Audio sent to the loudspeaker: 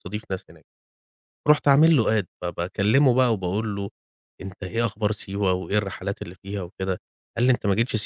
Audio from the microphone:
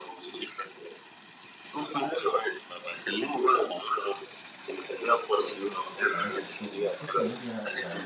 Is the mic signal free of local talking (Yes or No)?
No